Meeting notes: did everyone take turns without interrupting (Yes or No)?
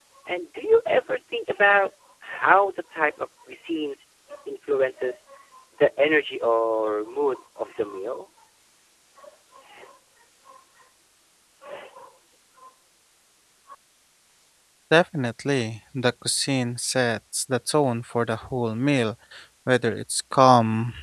Yes